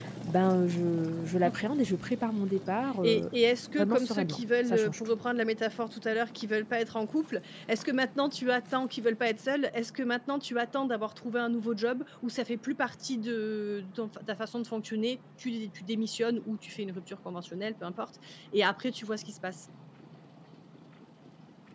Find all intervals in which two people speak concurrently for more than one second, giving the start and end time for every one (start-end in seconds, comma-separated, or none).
3.8-5.2